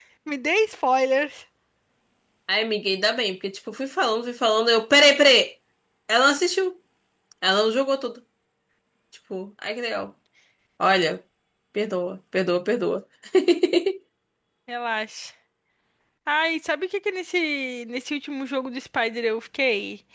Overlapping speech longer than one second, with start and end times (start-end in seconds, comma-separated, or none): none